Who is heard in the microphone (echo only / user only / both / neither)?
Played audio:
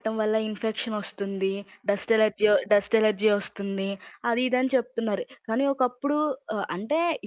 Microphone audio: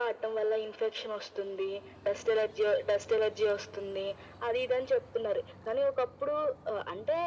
echo only